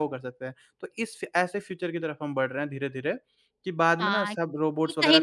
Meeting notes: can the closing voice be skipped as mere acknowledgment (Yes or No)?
No